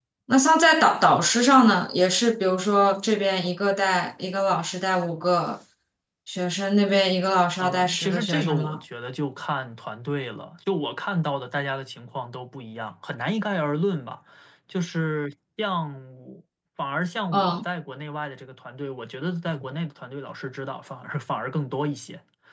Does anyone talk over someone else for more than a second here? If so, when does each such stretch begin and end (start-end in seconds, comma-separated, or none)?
7.6-8.8